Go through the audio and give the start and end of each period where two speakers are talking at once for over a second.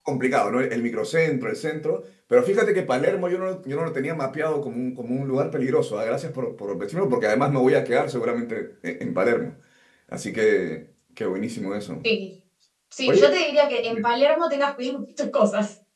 none

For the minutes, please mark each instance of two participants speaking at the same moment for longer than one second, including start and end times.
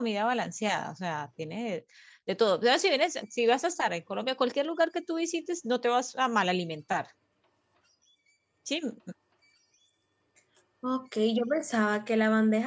none

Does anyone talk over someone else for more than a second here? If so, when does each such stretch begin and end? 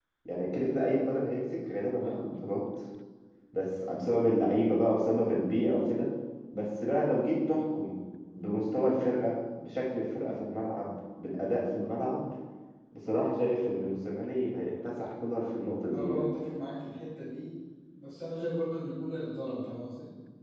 none

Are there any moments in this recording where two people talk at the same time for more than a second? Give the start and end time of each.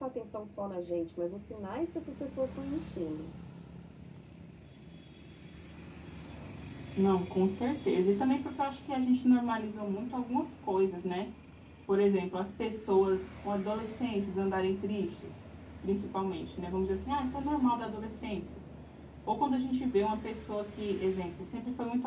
none

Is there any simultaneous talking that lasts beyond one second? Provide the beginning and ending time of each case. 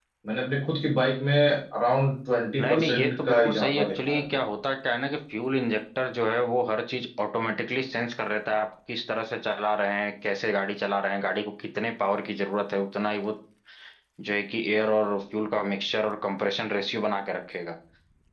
2.6-4.2

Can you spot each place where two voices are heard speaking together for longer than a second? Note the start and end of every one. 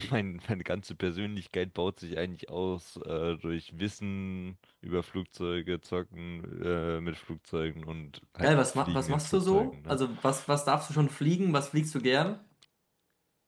8.4-10.0

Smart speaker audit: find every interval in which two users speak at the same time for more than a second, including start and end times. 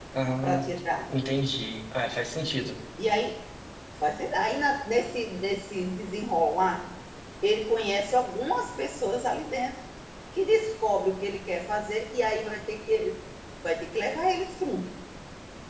none

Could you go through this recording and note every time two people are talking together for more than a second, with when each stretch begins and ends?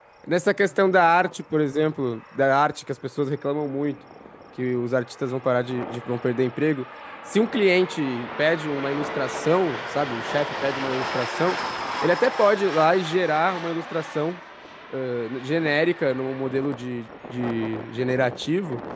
none

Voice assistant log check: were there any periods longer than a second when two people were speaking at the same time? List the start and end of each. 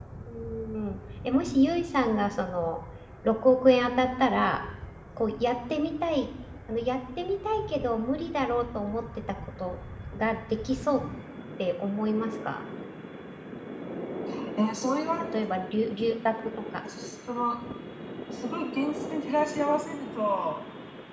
none

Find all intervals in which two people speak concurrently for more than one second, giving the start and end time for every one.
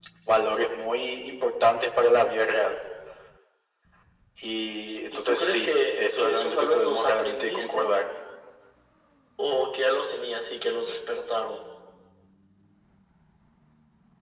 5.1-7.9

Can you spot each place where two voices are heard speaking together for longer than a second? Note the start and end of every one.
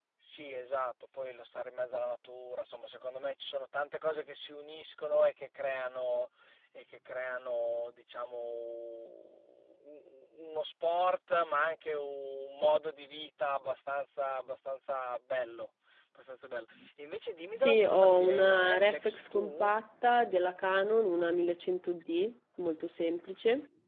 17.5-19.7

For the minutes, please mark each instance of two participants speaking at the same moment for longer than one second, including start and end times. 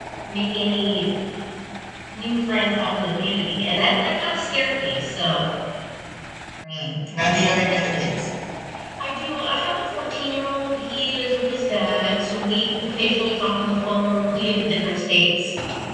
none

